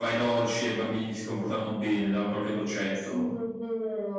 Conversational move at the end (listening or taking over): taking over